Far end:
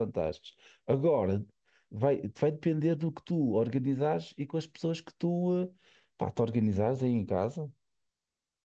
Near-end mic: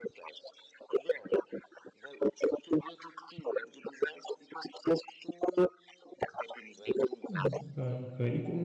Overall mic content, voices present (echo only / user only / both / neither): both